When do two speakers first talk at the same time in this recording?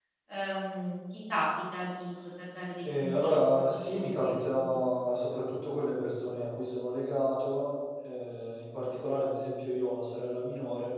3 s

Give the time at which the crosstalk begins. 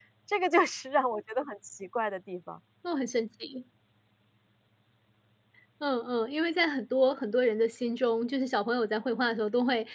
none

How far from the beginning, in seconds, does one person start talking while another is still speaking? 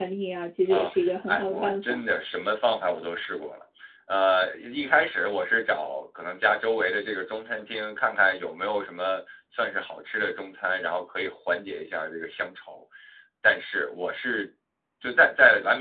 1 s

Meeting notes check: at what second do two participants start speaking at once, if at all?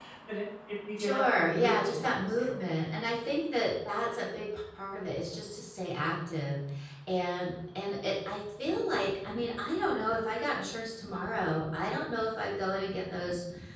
1 s

